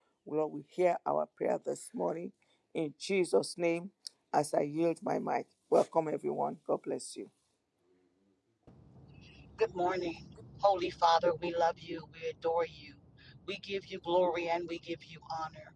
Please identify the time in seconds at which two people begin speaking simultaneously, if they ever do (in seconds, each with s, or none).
none